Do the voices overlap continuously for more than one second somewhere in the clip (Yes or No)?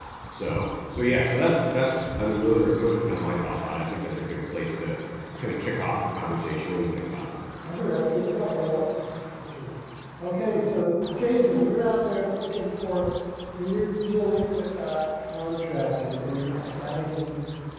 No